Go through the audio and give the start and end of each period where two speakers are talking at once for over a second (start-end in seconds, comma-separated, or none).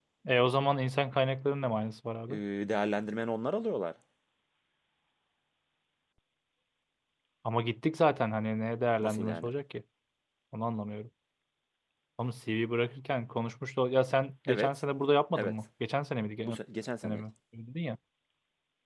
none